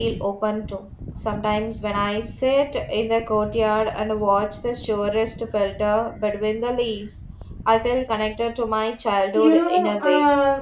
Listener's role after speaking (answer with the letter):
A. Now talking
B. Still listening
A